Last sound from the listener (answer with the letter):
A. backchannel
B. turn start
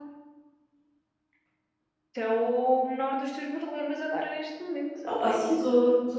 B